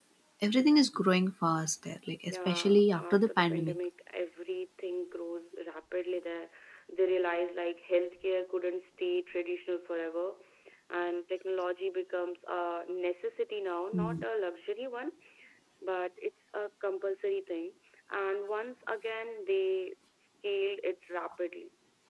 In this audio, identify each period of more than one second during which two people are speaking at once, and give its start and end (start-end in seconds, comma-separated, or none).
2.3-3.8